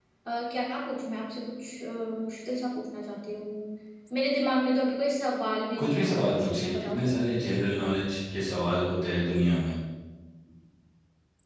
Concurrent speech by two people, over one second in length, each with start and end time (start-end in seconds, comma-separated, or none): 5.8-7.0